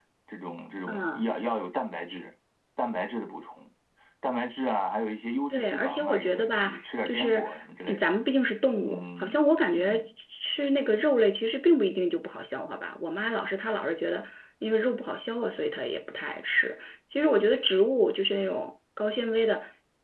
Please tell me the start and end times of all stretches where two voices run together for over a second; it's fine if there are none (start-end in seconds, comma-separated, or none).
5.5-7.4